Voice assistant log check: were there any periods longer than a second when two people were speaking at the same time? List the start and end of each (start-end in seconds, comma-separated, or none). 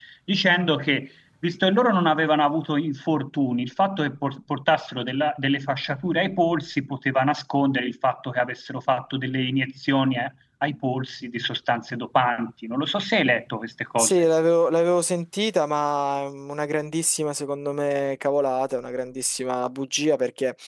none